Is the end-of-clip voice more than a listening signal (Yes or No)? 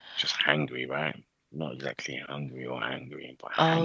Yes